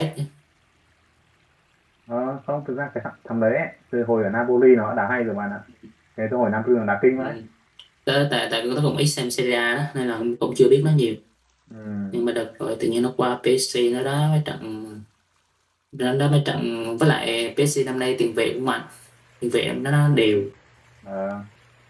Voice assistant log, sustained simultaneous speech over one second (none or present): none